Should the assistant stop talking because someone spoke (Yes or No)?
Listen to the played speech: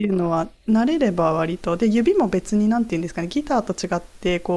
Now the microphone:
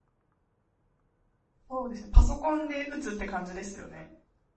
Yes